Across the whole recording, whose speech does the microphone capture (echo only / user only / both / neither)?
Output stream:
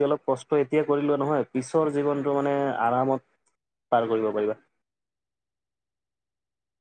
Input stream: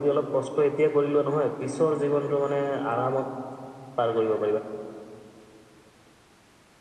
echo only